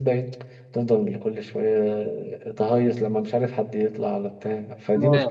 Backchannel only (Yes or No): No